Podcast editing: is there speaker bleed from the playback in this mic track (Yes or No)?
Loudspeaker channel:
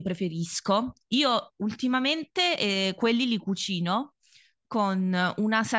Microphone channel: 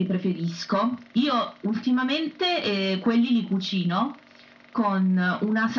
Yes